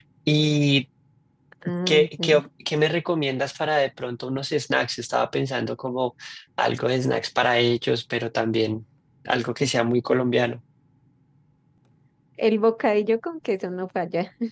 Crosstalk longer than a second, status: none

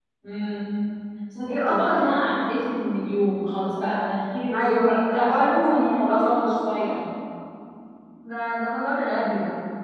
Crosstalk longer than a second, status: present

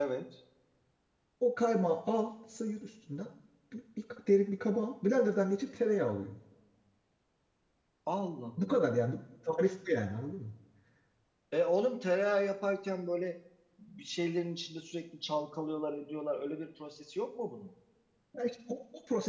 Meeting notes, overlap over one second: none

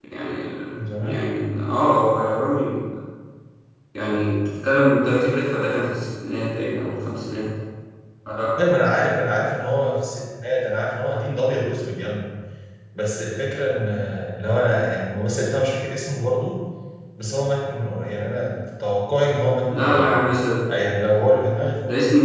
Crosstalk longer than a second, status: none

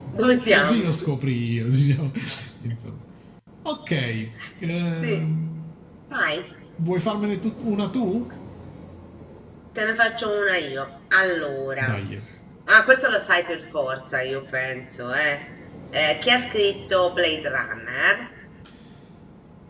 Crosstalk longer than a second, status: none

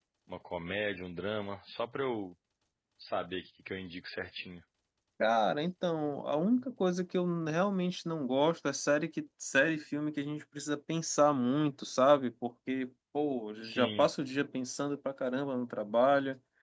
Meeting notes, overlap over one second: none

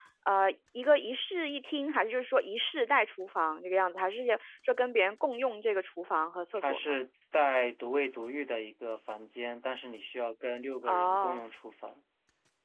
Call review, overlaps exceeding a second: none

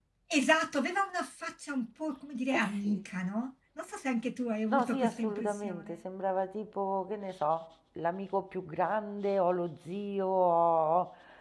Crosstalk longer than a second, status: present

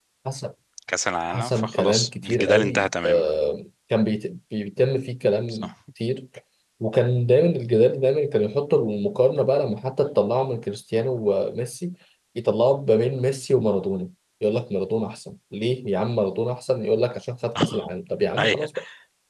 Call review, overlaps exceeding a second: present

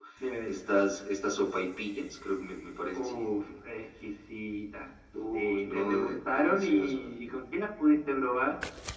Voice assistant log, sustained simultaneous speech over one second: present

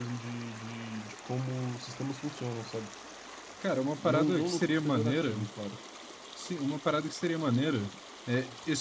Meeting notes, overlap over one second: present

